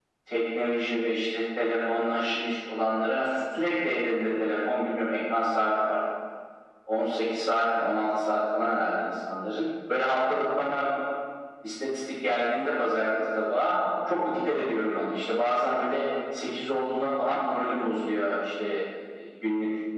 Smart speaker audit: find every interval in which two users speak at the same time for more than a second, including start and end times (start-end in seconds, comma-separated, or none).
none